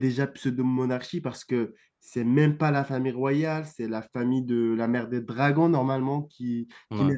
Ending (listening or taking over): listening